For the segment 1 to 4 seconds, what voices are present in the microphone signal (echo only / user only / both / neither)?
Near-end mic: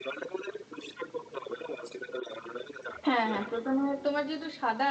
both